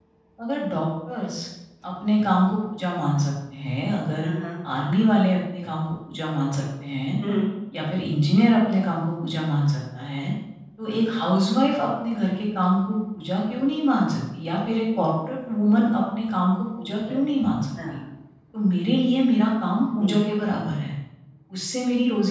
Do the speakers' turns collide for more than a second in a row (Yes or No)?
No